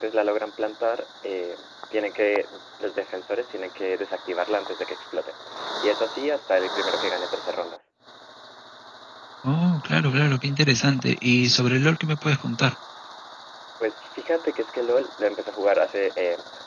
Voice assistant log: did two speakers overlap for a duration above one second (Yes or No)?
No